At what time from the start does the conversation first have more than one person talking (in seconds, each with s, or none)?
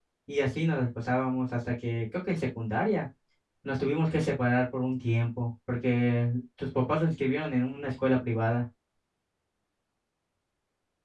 none